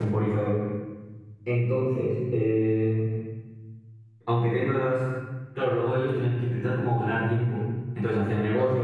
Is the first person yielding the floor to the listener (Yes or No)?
No